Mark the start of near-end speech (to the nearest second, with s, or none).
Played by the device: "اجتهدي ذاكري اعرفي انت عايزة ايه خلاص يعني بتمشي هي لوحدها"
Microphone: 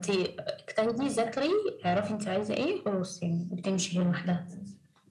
none